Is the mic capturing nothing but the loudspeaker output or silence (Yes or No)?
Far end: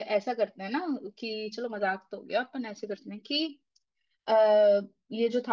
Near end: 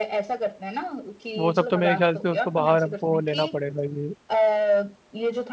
No